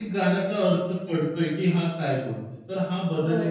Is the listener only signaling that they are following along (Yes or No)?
No